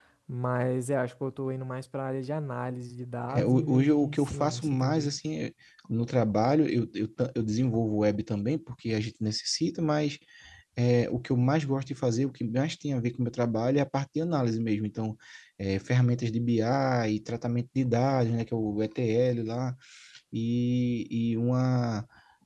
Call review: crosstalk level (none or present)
present